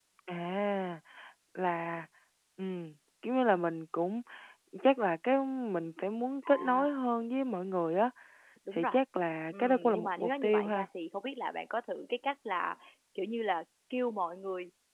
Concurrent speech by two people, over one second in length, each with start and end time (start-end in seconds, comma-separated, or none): 9.5-10.8